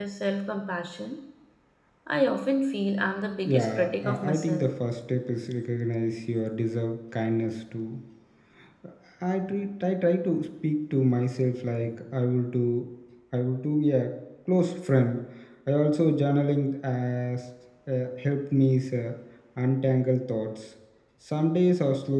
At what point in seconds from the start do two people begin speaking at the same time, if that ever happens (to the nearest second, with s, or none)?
3 s